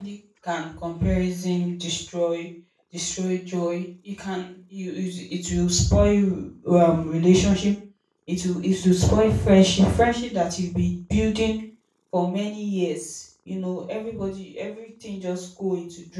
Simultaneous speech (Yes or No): No